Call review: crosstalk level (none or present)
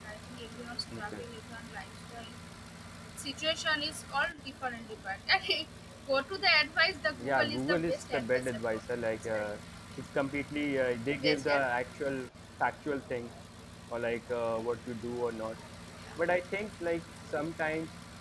present